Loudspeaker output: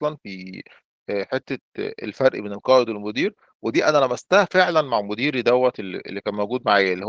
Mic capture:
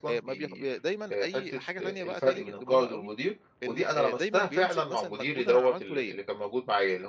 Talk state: both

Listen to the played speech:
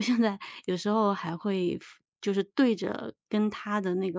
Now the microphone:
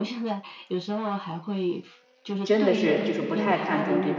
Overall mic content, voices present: both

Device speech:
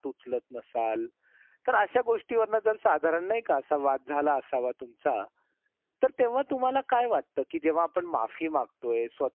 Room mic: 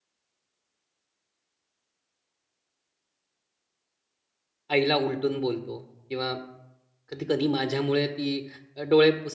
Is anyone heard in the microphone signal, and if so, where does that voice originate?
user only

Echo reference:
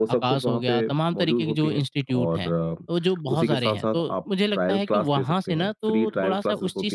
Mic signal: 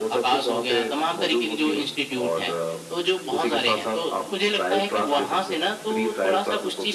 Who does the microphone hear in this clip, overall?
echo only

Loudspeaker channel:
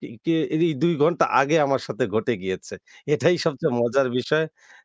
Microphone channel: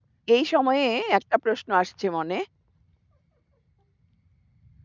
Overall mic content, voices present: user only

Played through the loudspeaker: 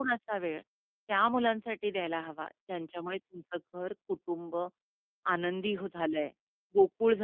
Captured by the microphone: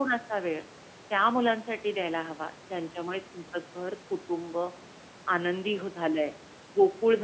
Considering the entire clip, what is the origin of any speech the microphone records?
echo only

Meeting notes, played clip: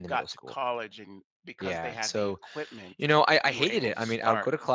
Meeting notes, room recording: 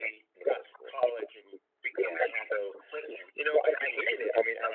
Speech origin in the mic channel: echo only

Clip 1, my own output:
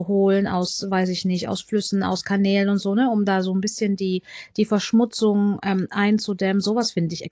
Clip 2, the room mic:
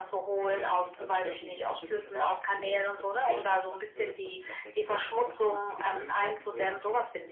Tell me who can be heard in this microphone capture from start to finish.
both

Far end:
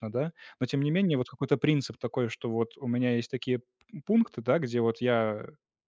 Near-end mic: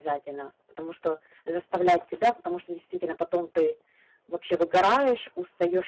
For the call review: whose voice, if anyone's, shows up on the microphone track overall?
user only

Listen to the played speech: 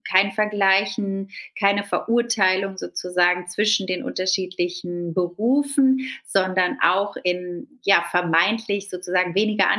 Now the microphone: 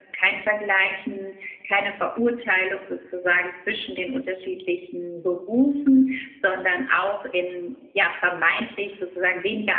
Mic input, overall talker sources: echo only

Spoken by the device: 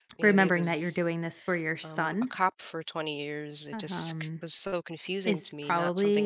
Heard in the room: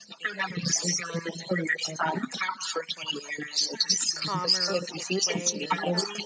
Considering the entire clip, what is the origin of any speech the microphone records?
both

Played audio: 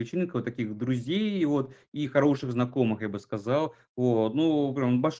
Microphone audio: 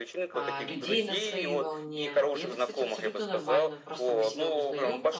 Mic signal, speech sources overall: both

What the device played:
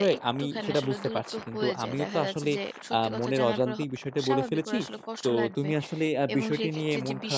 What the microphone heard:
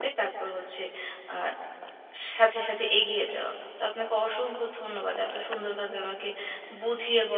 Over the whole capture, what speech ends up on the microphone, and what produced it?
user only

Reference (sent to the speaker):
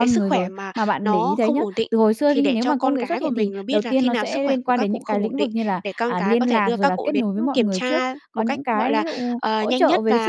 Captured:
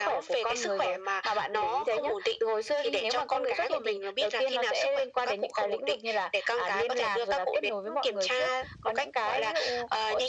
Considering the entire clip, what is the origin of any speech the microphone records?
echo only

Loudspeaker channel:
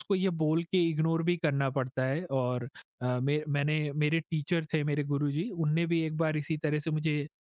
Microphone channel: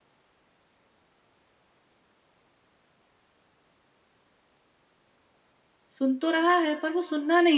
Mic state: user only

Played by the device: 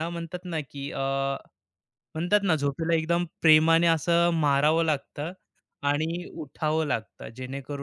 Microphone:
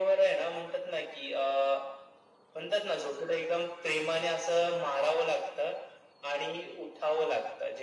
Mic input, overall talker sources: echo only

